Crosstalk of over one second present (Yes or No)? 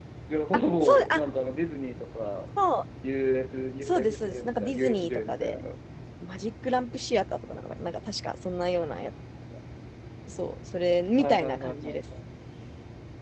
Yes